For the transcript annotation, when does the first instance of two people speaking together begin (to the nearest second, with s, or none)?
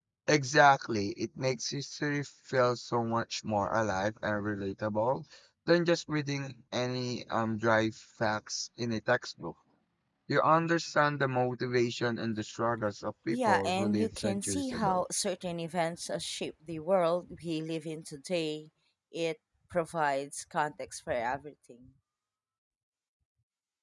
13 s